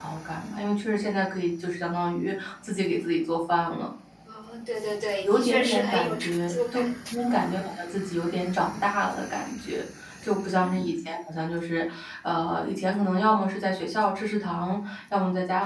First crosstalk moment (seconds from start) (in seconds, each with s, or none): 5.3 s